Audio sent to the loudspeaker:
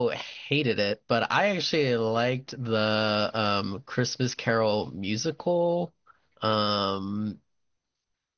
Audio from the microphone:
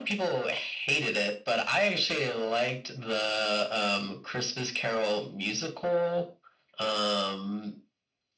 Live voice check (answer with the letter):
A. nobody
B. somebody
A